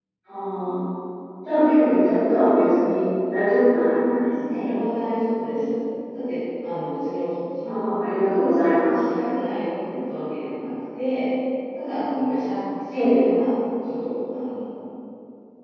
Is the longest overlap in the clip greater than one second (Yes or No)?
No